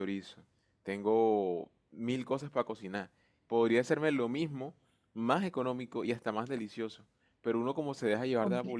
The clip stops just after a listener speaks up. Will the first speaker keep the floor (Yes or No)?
Yes